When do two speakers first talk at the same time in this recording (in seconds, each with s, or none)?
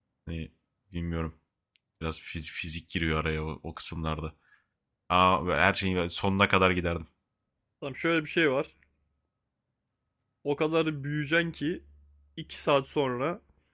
none